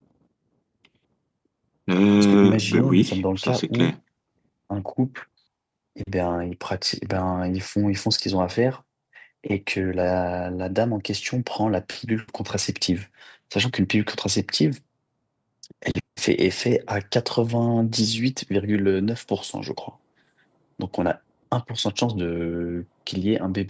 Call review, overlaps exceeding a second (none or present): present